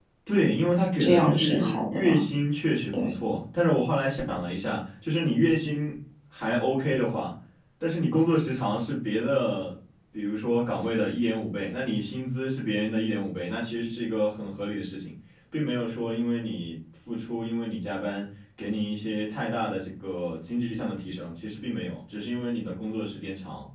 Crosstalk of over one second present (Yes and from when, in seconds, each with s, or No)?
Yes, from 1.0 s